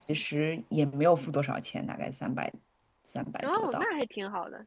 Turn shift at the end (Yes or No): Yes